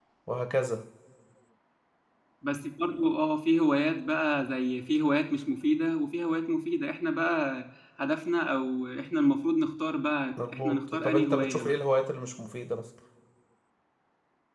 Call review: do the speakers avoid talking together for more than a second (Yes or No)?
No